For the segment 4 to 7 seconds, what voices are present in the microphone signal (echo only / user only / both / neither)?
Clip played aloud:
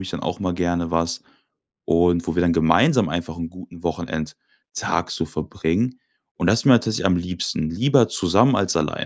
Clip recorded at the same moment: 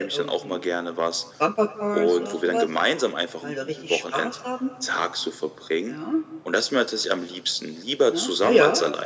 both